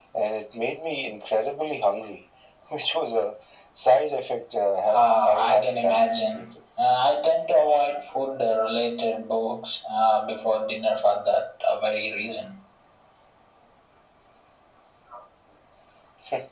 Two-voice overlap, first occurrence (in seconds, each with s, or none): 4.9 s